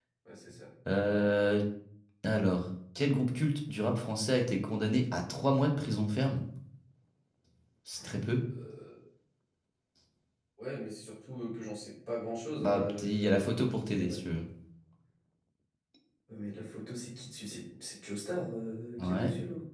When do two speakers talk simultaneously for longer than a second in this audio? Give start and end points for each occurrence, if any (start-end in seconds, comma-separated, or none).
12.6-14.2